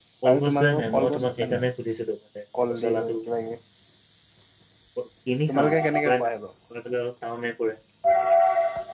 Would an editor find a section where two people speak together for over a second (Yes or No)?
Yes